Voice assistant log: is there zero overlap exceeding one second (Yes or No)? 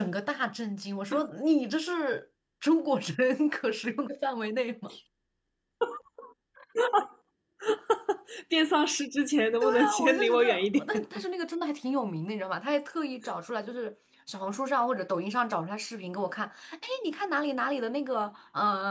No